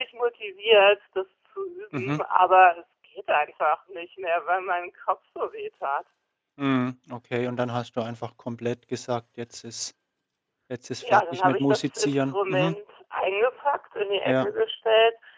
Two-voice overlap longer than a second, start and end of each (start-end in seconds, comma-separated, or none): 11.1-12.7